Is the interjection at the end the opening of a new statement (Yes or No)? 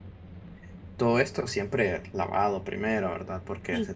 No